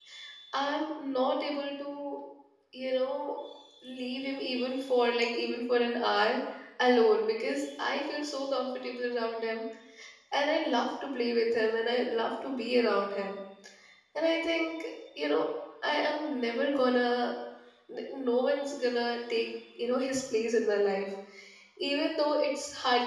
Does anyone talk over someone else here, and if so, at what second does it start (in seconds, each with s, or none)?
none